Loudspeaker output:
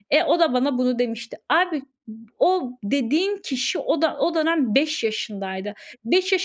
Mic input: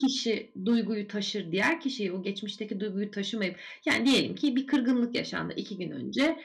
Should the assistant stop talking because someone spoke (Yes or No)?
Yes